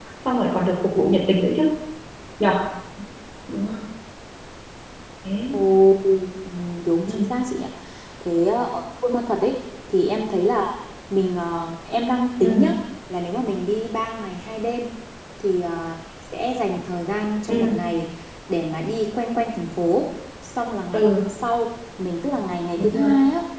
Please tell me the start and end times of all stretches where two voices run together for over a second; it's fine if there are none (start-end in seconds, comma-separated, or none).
none